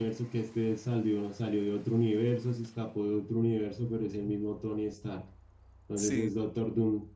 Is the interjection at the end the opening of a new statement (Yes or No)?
No